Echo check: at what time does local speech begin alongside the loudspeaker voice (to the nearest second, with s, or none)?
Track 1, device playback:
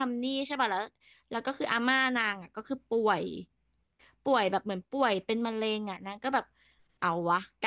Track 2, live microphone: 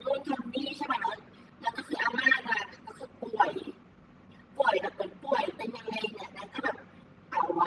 none